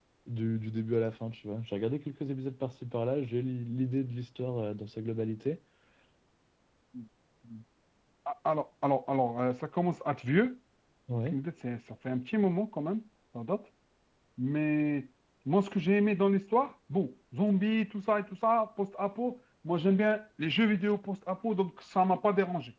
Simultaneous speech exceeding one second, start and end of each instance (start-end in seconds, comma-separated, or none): none